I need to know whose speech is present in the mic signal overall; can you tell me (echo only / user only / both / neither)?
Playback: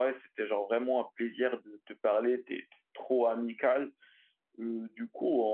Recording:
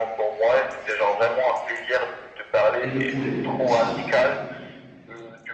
both